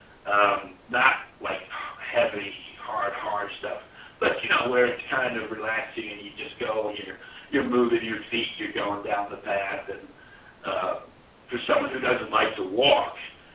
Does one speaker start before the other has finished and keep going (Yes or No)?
No